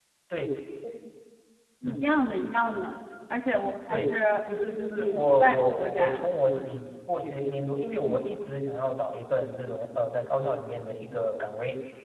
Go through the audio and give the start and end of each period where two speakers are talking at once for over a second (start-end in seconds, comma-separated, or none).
4.9-6.4